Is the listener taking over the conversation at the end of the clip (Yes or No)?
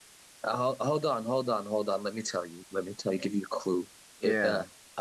No